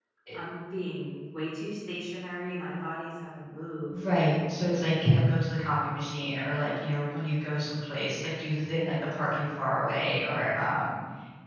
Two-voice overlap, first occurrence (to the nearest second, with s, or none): none